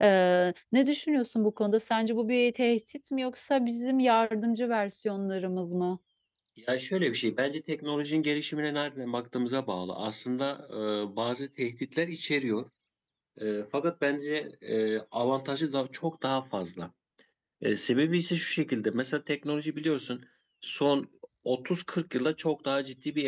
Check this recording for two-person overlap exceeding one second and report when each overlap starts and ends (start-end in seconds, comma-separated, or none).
none